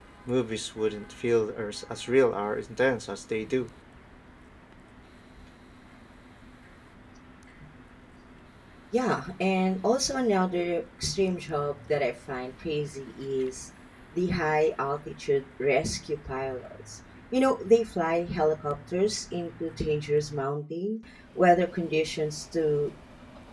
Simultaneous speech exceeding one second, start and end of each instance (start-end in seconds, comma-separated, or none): none